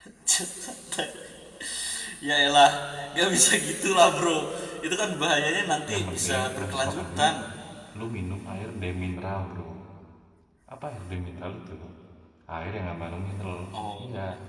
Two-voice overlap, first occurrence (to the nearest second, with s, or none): 6 s